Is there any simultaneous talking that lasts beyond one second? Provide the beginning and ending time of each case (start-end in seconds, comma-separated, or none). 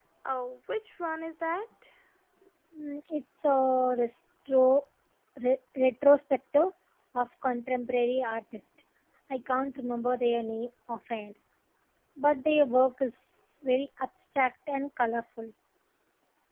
none